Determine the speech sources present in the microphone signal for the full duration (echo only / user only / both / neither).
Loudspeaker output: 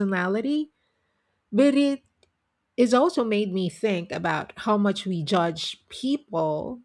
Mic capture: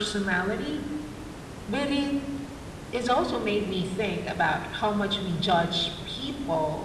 echo only